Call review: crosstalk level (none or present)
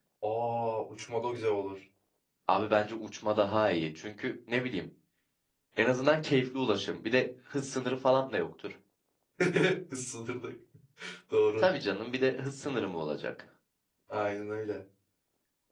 none